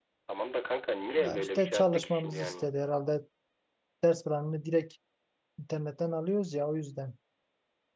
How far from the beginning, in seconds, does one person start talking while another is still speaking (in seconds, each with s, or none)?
1.2 s